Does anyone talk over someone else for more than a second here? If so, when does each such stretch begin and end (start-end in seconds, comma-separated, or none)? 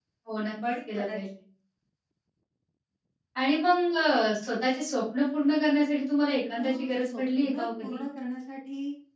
6.6-8.0